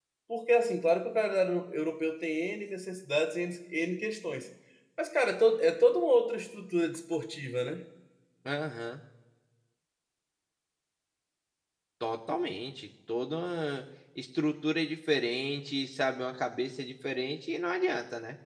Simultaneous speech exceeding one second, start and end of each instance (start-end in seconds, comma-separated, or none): none